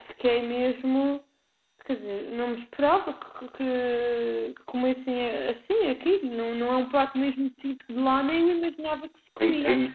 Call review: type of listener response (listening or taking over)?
taking over